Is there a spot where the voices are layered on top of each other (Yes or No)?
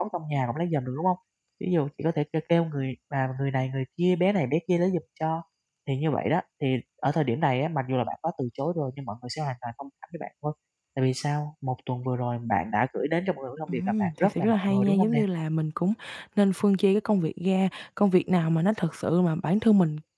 Yes